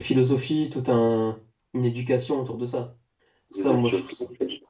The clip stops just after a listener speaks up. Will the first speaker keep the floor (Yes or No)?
No